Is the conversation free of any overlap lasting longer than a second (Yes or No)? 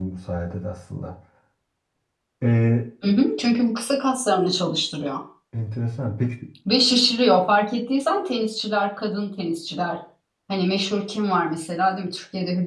Yes